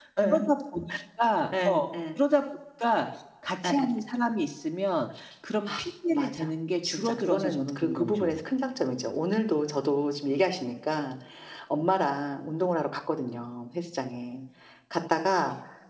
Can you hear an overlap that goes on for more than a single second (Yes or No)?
Yes